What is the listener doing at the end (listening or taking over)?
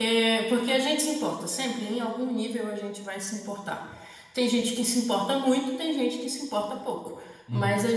listening